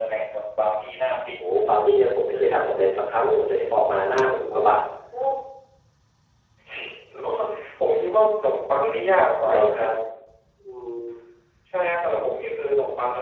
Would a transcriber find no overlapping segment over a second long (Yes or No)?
Yes